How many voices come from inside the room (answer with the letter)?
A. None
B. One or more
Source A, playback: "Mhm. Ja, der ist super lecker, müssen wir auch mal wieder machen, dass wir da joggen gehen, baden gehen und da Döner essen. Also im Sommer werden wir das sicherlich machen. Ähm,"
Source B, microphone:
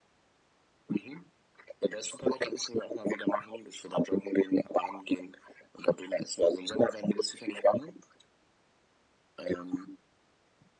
A